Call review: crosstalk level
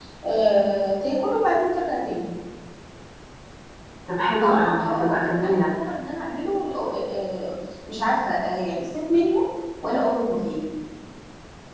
present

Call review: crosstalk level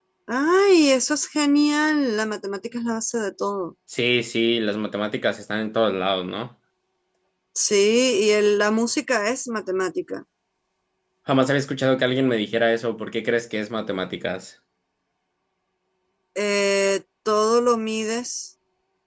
none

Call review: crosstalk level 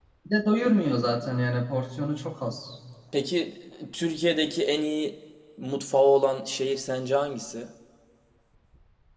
none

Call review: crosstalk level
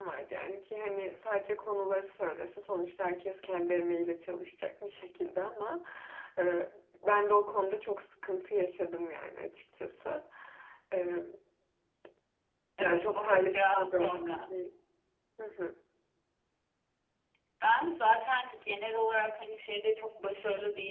present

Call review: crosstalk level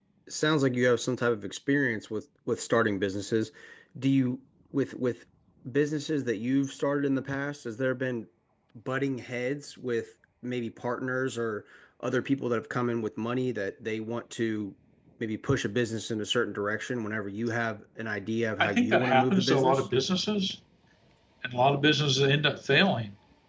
present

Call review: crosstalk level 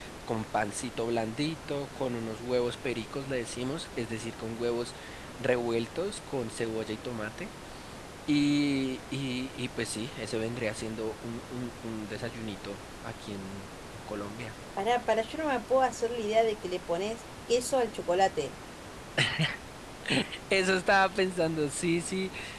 none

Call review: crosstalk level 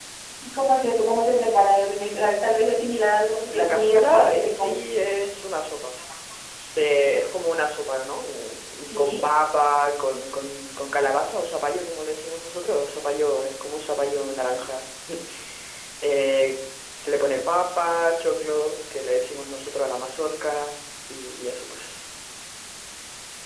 present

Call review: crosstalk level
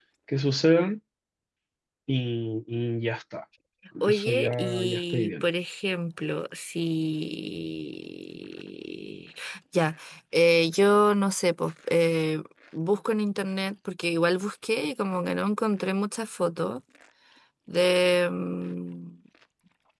present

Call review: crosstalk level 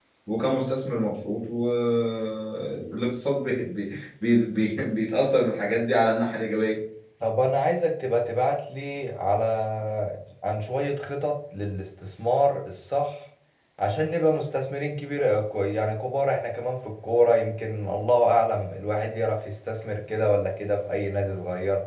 none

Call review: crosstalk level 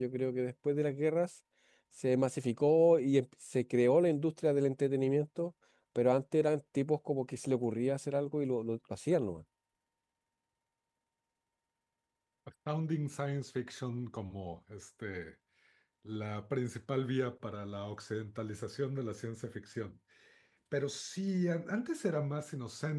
none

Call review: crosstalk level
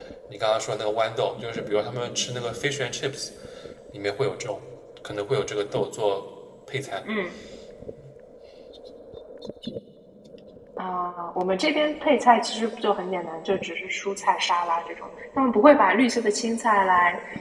none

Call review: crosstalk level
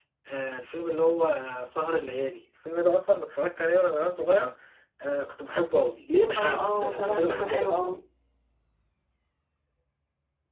present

